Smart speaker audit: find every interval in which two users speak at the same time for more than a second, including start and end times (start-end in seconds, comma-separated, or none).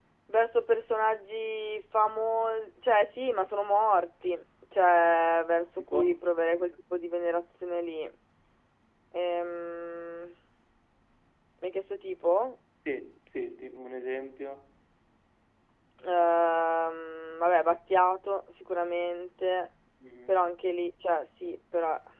none